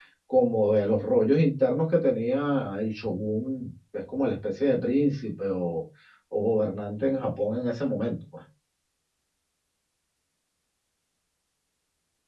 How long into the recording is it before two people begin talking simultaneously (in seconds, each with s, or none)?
none